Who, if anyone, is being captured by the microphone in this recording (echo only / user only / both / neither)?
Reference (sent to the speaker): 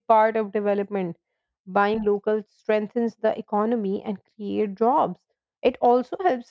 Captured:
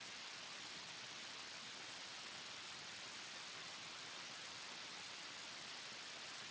neither